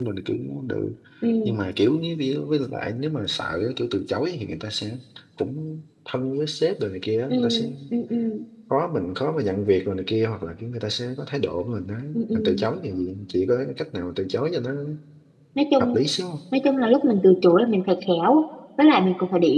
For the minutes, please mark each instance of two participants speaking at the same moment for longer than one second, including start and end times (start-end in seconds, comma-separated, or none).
none